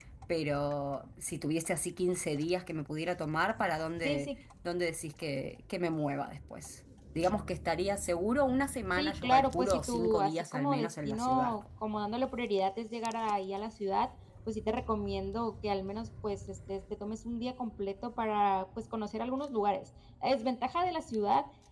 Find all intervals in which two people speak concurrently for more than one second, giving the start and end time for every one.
9.0-11.5

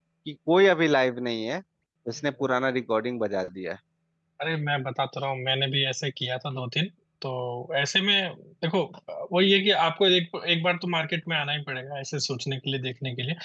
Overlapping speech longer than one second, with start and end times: none

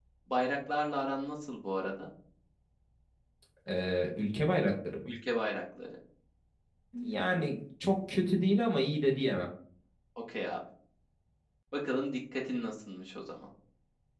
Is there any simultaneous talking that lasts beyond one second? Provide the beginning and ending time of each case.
none

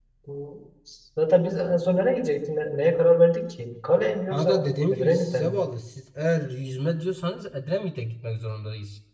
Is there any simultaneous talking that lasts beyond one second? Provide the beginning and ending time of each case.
4.3-5.6

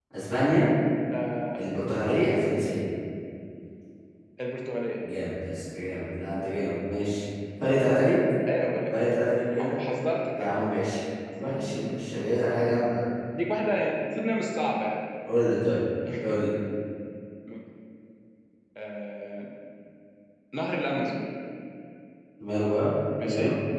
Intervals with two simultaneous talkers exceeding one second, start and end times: none

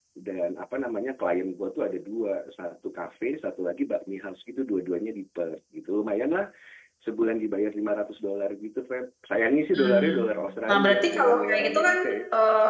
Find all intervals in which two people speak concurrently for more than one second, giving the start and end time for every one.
10.7-12.0

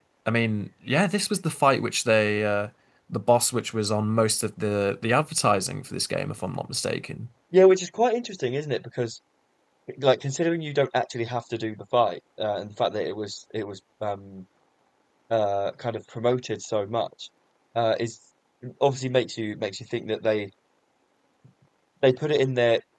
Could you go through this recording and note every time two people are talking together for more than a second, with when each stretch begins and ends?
none

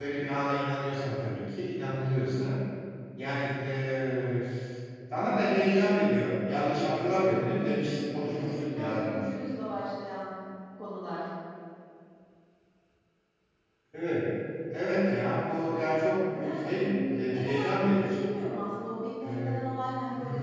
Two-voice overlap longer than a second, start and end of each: 6.5-9.4, 16.3-18.3

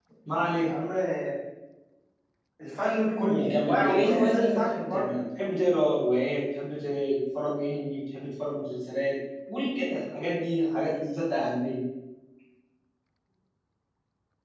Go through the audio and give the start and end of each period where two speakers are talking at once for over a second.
3.3-5.1

